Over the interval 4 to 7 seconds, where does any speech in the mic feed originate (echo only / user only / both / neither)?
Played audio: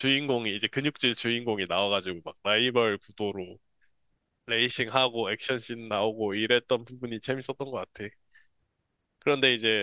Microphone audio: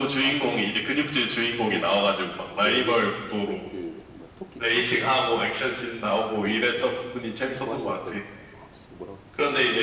both